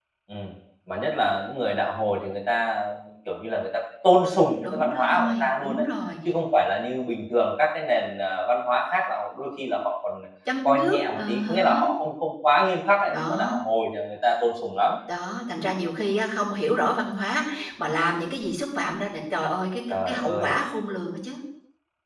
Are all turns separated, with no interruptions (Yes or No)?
No